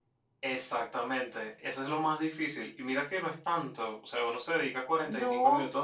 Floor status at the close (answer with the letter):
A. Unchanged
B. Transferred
A